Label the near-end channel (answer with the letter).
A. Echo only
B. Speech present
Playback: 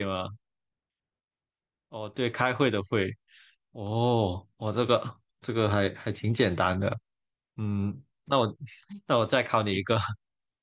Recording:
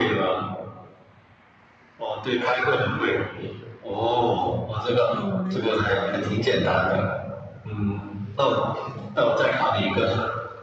B